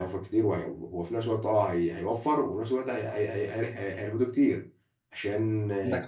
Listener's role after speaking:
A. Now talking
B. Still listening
B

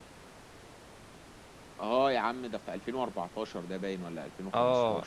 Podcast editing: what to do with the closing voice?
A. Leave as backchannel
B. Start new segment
B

